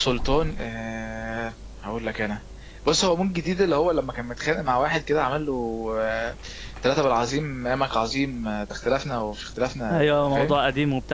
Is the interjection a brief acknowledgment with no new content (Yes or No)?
No